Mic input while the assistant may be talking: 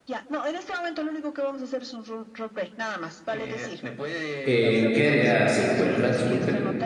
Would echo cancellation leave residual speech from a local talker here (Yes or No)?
Yes